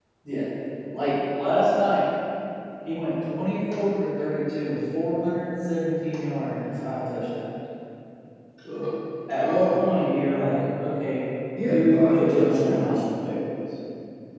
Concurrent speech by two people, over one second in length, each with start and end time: 11.7-13.0

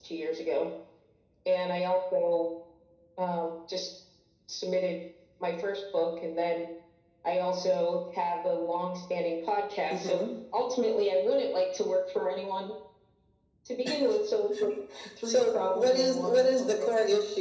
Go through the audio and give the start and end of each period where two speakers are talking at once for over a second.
15.2-16.9

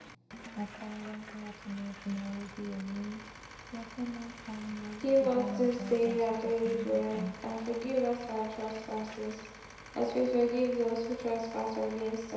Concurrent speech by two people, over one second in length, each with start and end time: 5.0-7.3

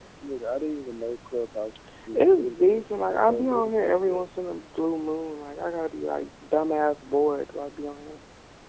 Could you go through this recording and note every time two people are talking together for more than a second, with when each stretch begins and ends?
2.1-4.3

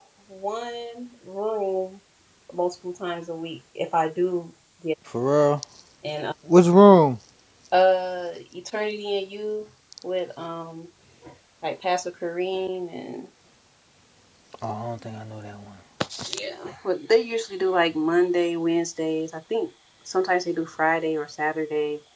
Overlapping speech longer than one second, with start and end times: none

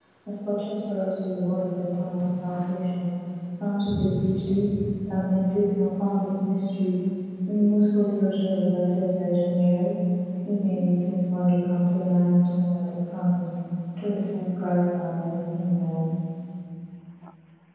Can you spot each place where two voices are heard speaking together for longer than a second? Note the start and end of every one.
none

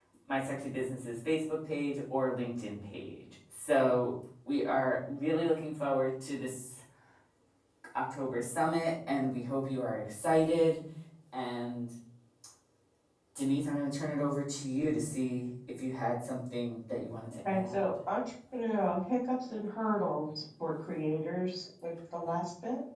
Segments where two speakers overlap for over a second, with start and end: none

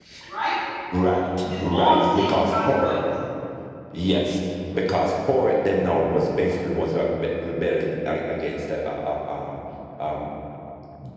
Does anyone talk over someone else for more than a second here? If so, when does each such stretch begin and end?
1.6-2.9

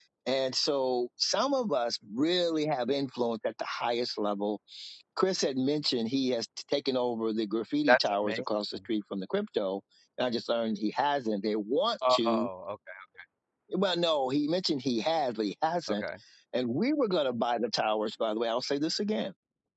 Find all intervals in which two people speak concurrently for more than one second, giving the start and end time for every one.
none

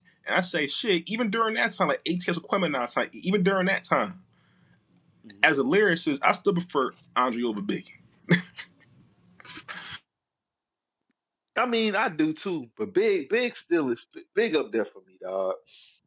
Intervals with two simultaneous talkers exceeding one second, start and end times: none

